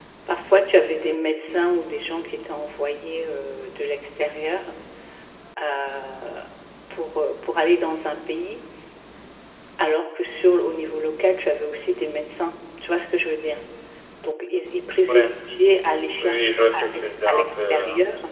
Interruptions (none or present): present